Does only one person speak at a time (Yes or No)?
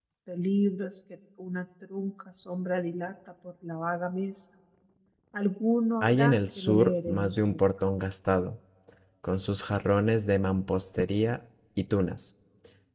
No